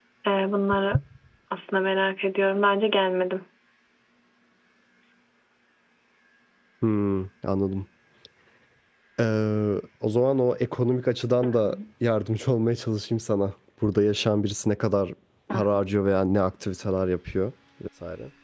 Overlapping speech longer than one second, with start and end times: none

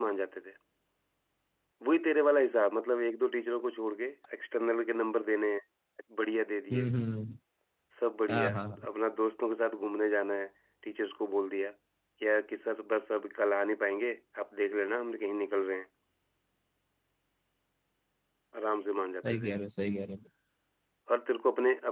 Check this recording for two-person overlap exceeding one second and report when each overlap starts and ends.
none

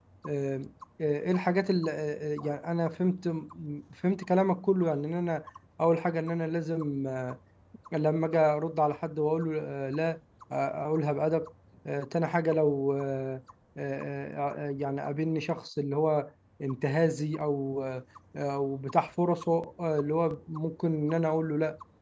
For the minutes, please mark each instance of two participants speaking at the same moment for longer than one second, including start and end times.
none

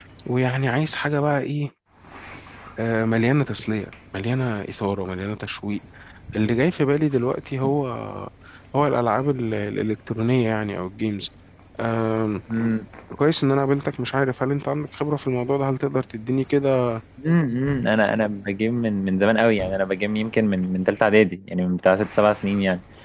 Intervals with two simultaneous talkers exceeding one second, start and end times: none

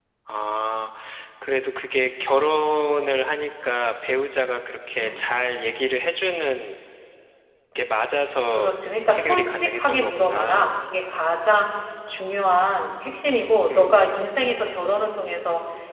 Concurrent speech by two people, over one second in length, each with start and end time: 9.1-10.7

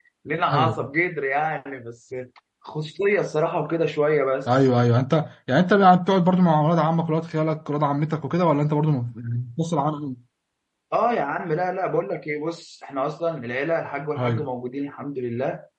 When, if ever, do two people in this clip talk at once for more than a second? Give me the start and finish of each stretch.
none

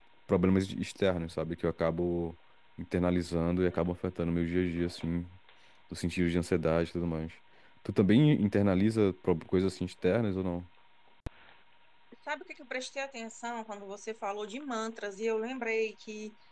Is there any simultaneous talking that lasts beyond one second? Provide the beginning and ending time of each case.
none

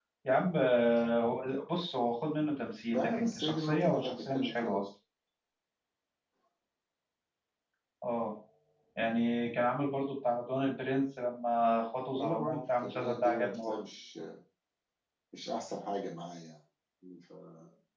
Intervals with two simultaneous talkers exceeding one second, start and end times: 2.9-4.7, 12.2-13.8

